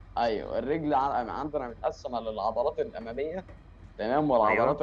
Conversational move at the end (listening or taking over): listening